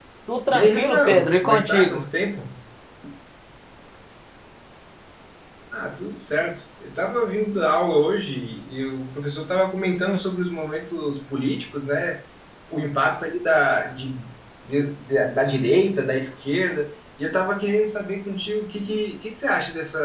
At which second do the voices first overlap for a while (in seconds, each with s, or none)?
0.5 s